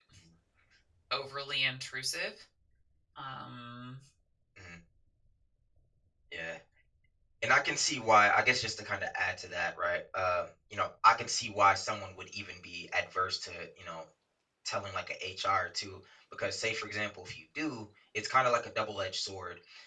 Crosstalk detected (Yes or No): No